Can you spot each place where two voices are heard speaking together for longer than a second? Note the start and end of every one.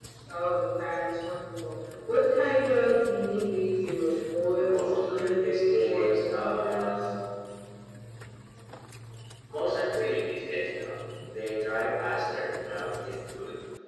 4.7-7.1

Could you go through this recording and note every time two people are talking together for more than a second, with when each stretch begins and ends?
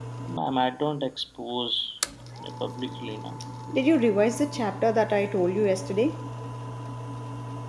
none

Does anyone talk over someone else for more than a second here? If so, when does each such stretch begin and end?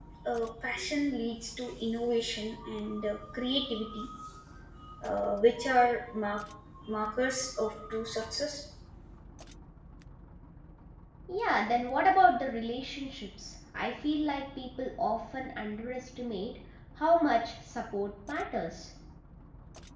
none

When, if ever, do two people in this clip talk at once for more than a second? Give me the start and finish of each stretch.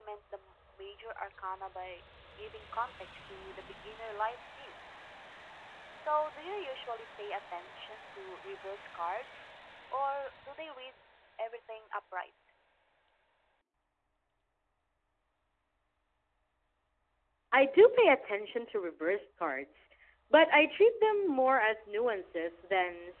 none

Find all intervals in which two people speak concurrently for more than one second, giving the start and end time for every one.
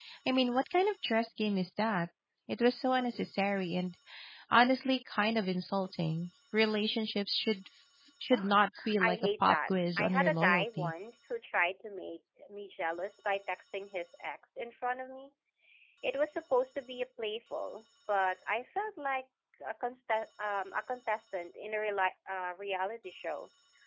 9.0-10.9

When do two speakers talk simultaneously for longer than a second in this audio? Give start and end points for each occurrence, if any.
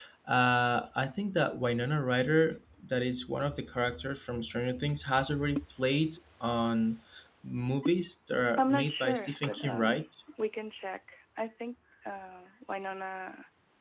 8.6-10.0

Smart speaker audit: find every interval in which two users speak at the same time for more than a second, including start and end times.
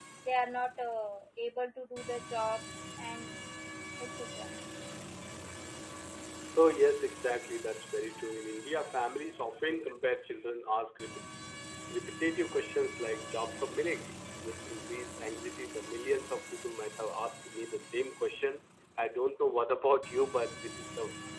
none

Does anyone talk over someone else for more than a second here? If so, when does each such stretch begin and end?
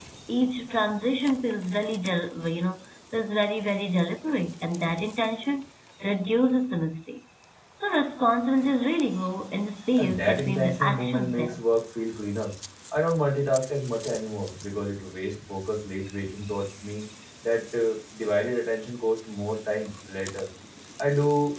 10.0-11.6

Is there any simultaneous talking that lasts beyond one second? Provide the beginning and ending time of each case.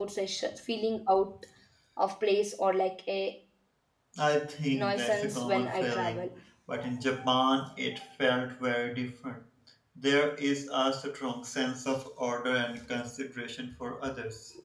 4.7-6.3

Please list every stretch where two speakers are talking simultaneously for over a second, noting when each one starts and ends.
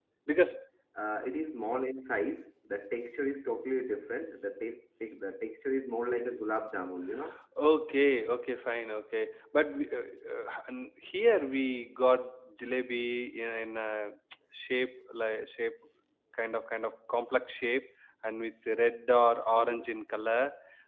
none

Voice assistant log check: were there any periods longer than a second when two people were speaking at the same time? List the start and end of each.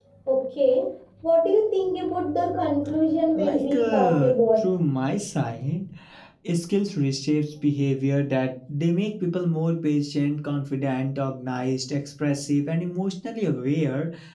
3.4-4.7

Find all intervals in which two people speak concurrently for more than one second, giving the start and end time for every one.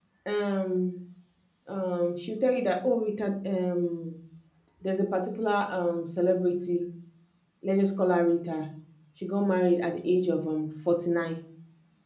none

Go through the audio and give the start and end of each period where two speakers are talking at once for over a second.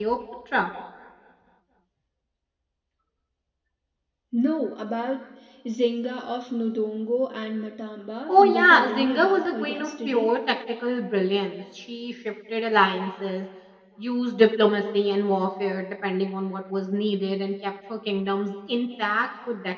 8.3-10.3

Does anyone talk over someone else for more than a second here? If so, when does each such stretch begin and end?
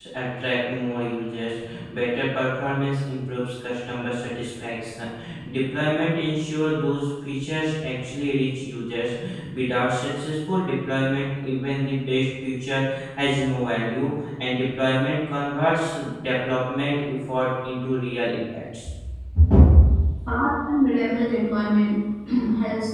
none

